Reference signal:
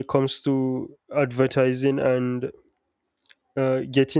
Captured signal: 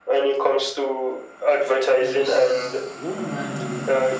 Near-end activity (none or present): present